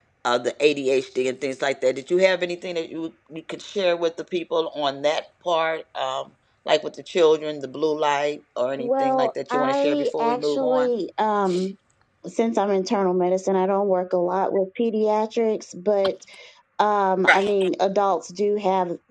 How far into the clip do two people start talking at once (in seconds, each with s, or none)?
8.8 s